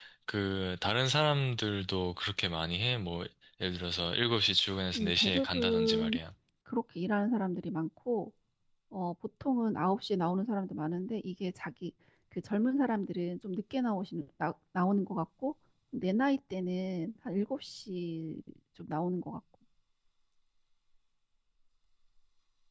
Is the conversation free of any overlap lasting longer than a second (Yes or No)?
No